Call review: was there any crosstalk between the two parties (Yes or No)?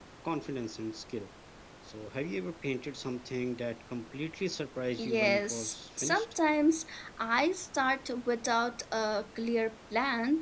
Yes